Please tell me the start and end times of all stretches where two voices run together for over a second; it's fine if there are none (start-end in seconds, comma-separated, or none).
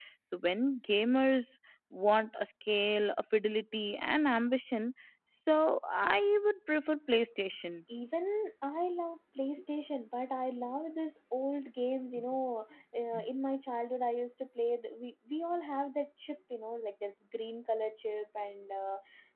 none